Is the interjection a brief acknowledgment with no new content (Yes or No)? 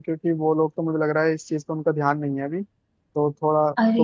No